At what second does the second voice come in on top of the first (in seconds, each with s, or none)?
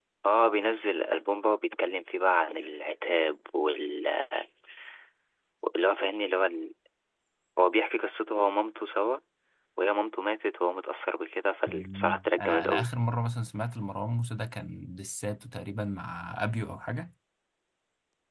11.7 s